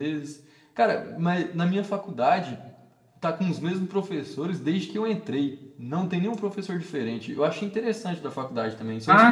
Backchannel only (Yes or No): No